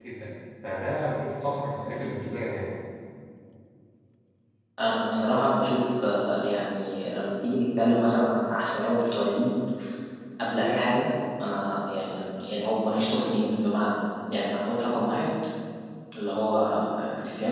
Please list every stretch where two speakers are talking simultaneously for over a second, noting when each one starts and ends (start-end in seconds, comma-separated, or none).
none